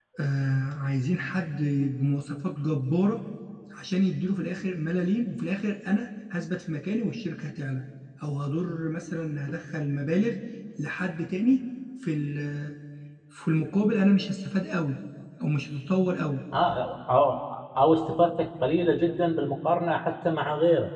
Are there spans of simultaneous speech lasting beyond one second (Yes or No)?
No